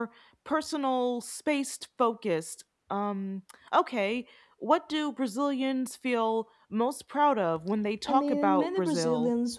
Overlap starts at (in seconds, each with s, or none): 8.1 s